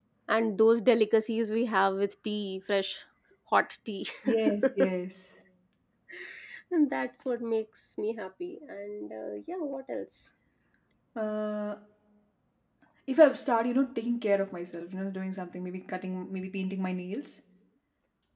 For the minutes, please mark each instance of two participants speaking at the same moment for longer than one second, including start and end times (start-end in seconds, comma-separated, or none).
none